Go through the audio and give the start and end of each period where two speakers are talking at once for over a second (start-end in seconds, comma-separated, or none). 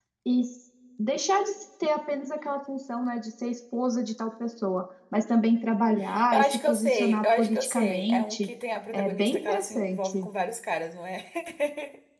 6.3-8.5, 8.9-10.3